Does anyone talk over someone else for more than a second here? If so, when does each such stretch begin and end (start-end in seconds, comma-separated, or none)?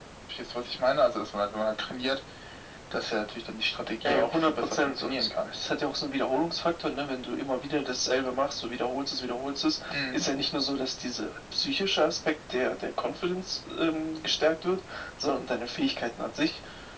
4.0-5.5